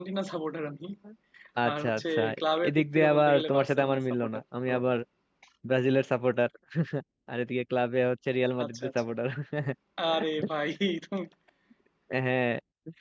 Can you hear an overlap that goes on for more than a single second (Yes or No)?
Yes